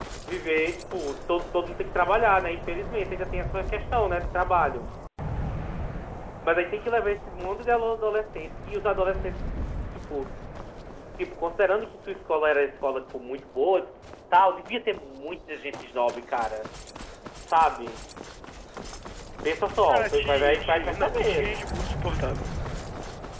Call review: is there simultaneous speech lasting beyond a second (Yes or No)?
Yes